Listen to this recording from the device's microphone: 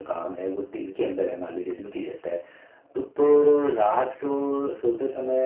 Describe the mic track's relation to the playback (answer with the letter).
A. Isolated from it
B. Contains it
B